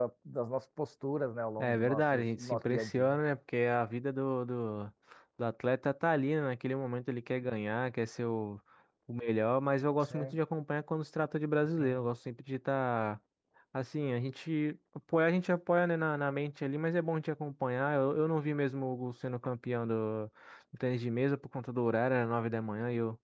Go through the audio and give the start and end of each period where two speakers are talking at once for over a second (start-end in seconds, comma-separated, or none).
1.6-3.2